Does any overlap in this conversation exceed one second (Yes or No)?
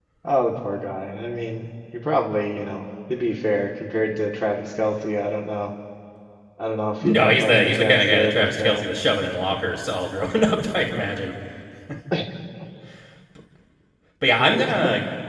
Yes